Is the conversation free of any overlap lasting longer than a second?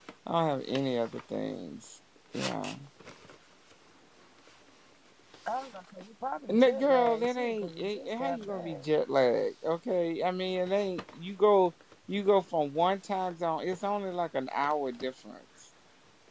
No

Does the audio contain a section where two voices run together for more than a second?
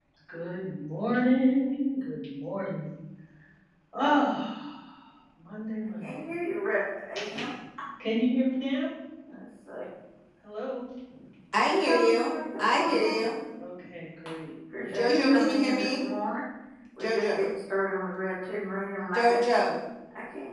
Yes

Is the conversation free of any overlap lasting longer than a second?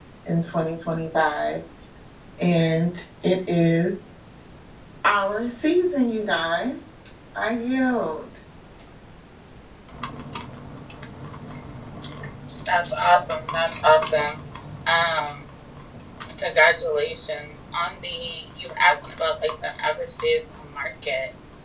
Yes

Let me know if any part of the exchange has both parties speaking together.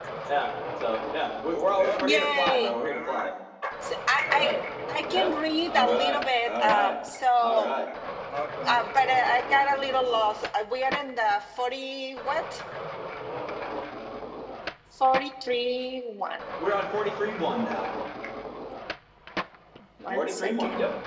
Yes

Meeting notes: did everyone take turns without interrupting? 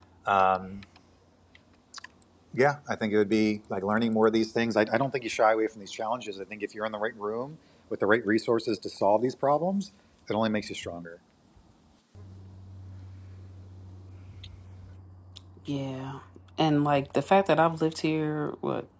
Yes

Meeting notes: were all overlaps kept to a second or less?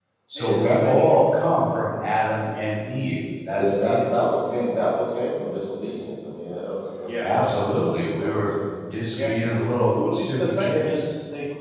No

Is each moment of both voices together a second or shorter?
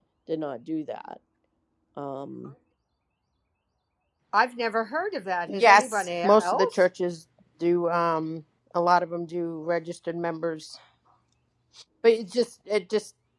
No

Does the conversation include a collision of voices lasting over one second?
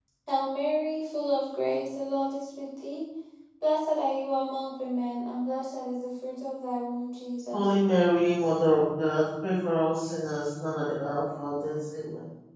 No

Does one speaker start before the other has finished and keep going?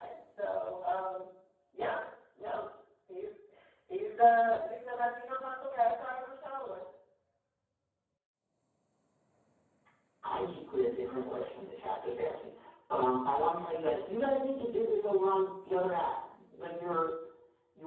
No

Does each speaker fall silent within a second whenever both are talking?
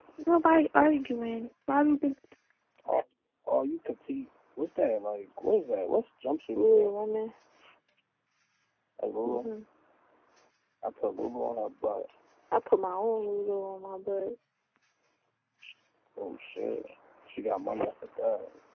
Yes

